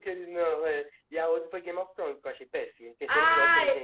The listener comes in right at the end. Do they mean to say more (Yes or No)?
Yes